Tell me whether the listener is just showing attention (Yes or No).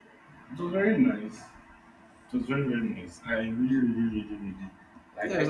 No